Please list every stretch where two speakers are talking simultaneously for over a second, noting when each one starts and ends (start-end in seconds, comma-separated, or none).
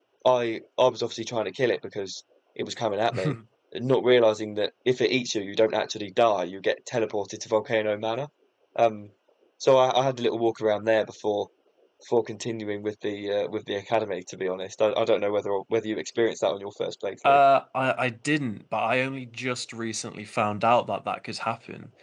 none